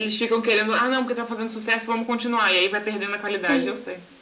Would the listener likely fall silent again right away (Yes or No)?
No